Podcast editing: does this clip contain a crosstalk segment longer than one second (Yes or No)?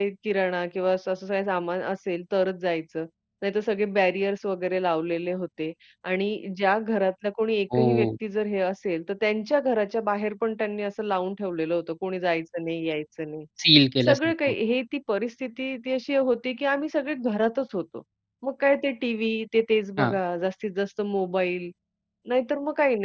No